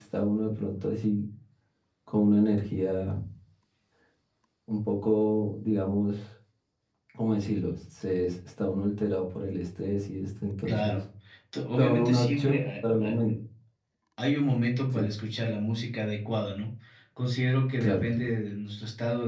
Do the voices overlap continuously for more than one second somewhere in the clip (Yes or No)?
Yes